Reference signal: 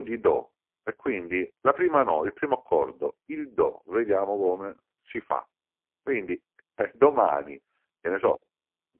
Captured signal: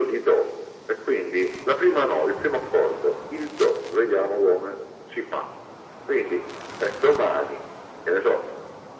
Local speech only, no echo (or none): none